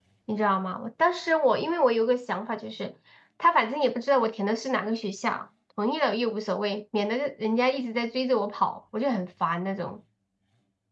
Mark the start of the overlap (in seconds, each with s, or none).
none